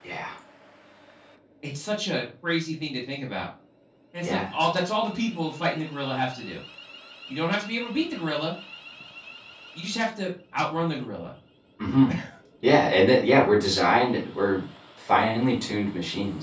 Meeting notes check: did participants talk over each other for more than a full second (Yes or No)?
No